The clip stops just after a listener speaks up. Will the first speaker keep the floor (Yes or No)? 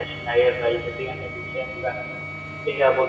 Yes